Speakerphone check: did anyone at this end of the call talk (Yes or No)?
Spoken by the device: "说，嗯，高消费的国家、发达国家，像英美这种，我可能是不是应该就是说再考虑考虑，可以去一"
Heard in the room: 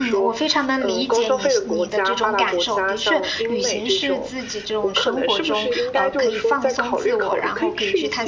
Yes